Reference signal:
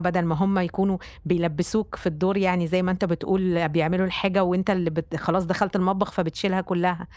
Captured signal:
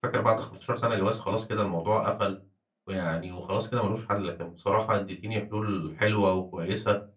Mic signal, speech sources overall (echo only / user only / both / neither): user only